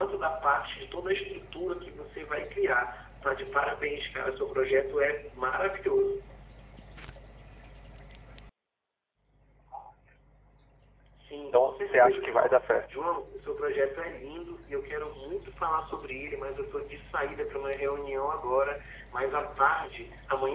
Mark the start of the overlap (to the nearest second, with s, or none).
12 s